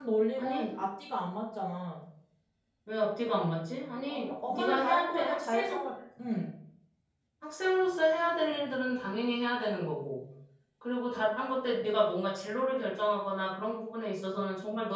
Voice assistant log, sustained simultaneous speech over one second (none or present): present